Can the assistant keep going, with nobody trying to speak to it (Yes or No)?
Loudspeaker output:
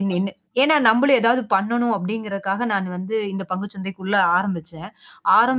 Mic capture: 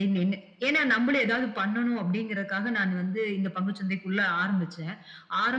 Yes